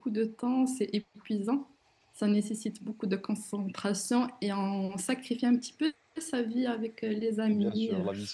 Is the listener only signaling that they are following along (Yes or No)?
No